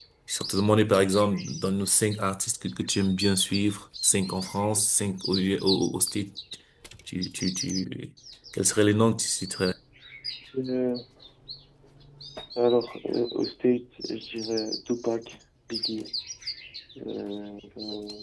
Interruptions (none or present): none